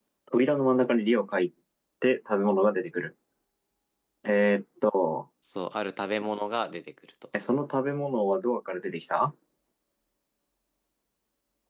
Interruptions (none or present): none